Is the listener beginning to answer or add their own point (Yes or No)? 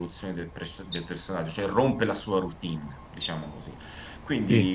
No